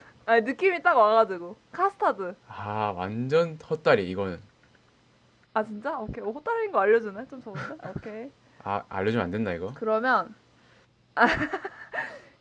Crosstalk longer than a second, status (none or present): none